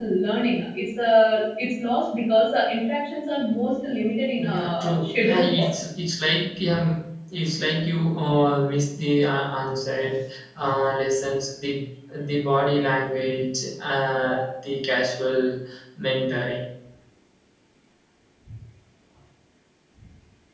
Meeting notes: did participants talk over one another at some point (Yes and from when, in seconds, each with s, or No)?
Yes, from 4.4 s